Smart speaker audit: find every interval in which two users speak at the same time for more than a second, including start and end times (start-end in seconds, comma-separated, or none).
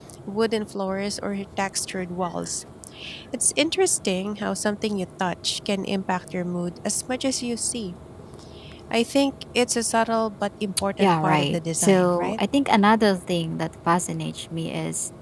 11.0-12.4